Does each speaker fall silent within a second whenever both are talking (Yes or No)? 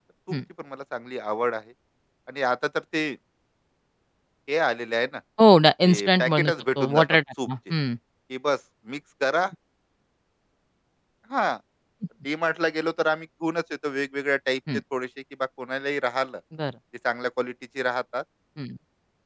No